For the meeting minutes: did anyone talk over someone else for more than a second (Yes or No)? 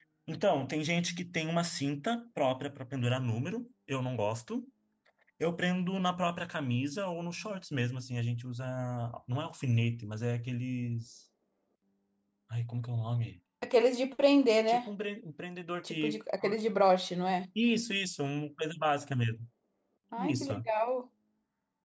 No